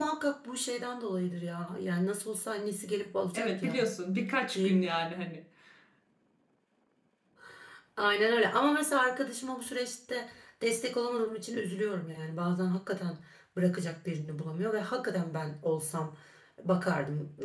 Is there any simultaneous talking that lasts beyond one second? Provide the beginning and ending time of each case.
none

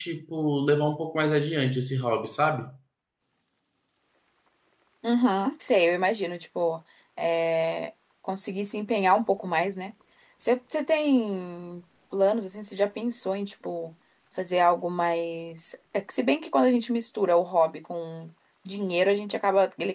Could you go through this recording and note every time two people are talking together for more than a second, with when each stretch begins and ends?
none

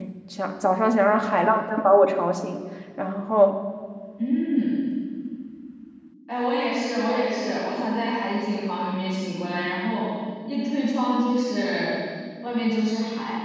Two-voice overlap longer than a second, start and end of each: none

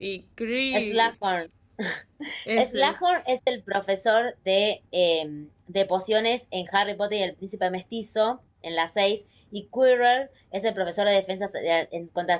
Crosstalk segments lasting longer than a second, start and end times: none

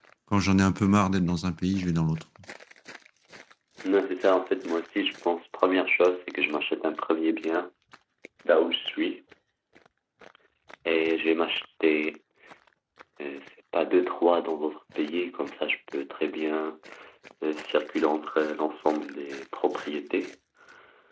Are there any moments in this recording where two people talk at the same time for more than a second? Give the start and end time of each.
none

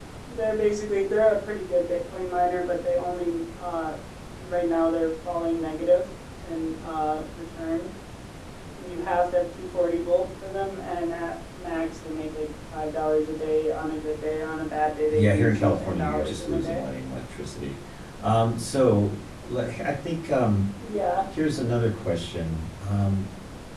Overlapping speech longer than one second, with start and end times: 15.1-16.8

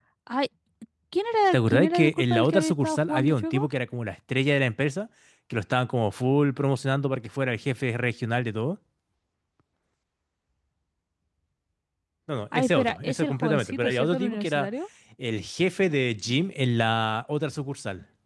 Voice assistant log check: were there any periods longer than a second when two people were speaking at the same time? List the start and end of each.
1.5-3.7, 12.5-14.7

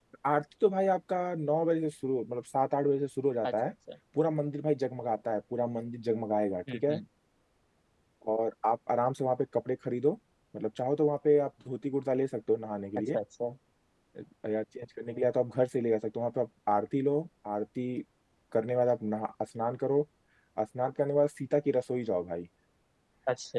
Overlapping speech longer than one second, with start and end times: none

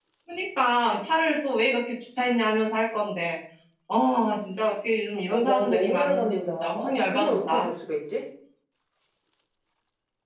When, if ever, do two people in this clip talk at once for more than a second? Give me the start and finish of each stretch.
5.3-7.7

